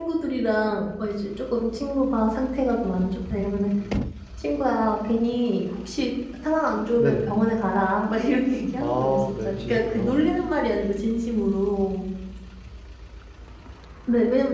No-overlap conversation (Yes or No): No